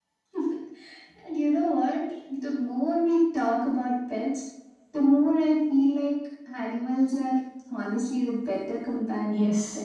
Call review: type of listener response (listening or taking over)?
taking over